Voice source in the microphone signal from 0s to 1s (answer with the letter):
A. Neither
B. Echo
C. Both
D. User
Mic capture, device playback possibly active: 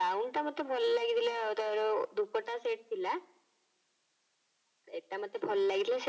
B